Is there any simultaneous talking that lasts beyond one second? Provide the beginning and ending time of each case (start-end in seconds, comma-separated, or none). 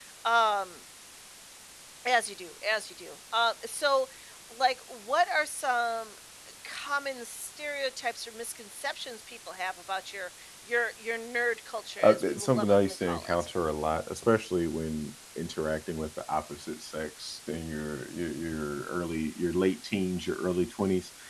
12.0-13.3